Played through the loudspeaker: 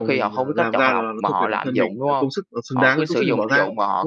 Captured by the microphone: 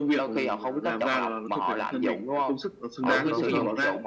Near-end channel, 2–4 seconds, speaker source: both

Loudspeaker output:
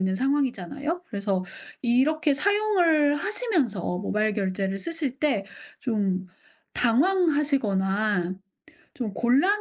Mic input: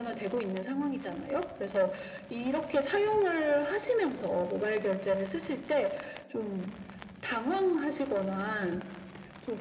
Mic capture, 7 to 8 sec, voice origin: echo only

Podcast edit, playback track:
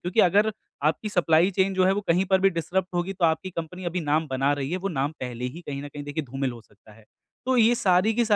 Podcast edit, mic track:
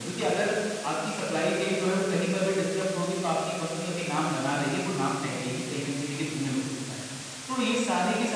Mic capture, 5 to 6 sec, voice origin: echo only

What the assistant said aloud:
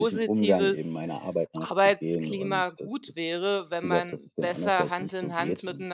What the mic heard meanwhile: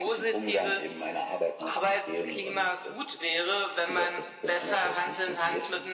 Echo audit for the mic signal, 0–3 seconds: echo only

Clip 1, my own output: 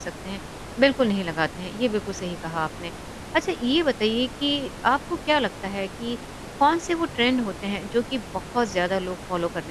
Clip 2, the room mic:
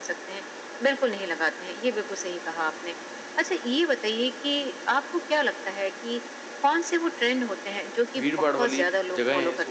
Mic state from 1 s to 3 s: echo only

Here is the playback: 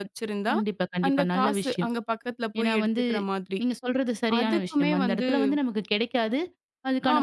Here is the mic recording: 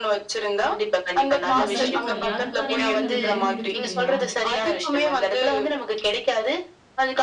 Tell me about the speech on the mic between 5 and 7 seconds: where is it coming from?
echo only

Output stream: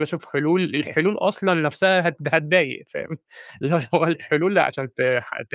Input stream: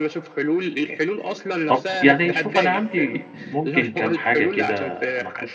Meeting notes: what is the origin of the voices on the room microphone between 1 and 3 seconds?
both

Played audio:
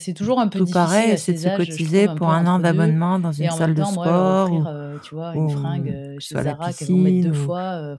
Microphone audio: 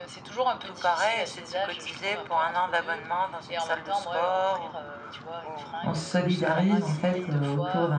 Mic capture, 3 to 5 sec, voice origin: echo only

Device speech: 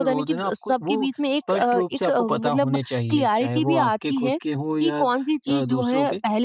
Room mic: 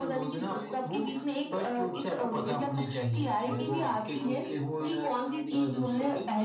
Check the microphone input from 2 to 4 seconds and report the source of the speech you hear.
both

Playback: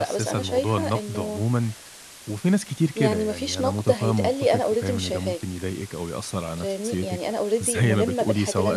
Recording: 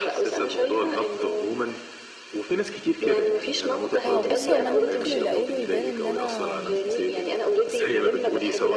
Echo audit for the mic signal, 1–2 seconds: echo only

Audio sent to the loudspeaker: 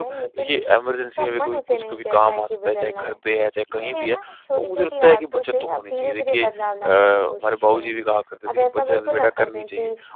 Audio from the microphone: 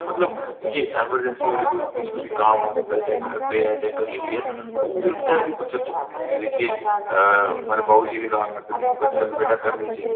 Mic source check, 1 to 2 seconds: both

